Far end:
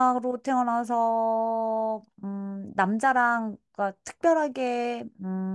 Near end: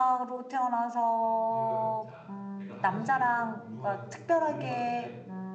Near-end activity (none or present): present